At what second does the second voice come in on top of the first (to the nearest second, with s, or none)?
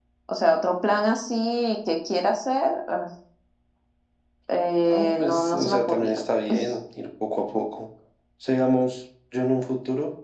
5 s